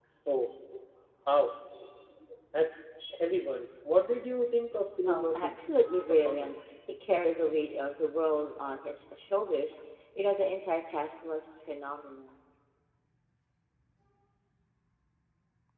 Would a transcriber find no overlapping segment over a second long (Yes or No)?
No